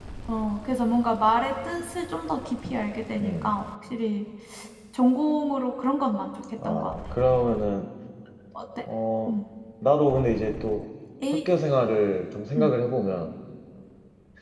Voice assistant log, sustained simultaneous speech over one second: none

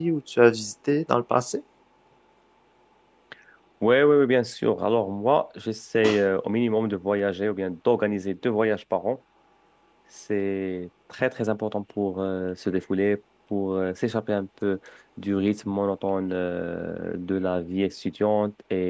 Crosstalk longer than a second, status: none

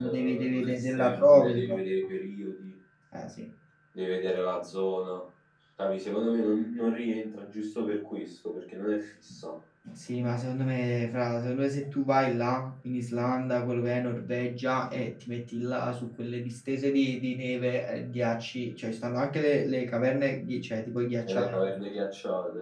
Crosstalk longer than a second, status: present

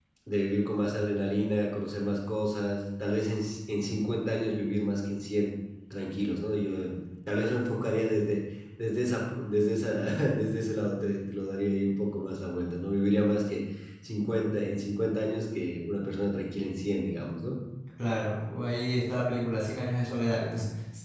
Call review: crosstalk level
none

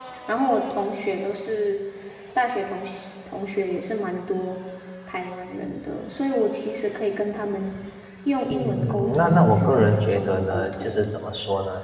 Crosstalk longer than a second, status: present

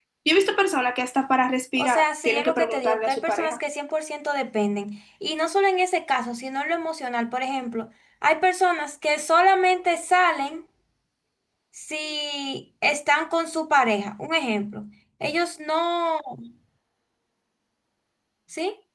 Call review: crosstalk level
present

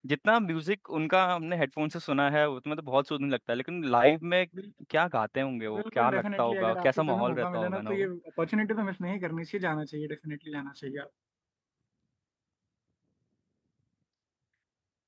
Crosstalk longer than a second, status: present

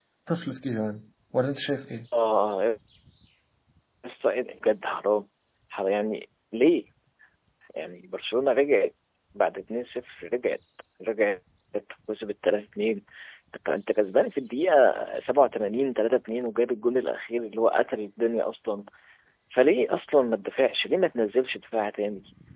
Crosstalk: none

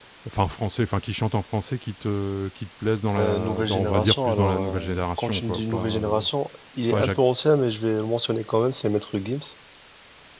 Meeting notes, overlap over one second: present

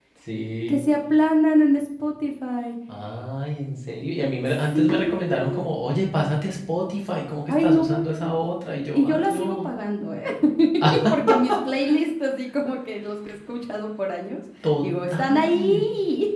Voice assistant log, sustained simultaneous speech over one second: present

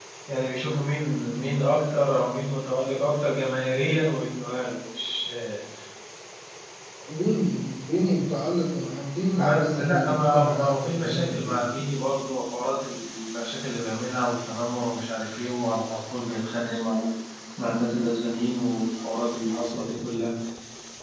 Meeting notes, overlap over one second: present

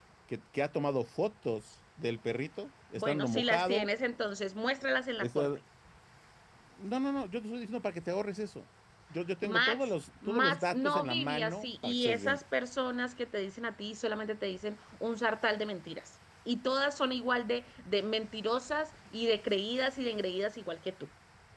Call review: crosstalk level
present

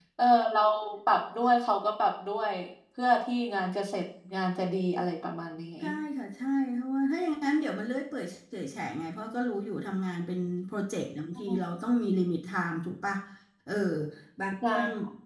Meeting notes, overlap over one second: none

